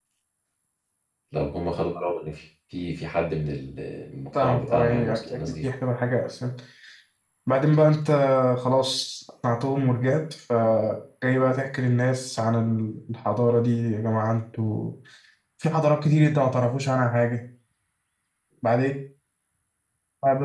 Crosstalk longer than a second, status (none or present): present